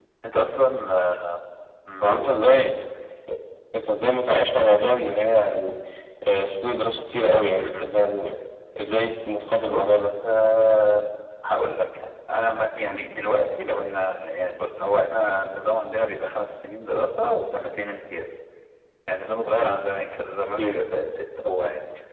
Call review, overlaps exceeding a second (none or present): none